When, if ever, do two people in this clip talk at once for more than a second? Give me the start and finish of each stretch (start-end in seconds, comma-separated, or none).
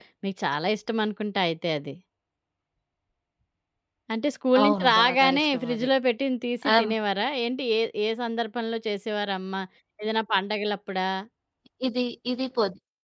4.6-5.9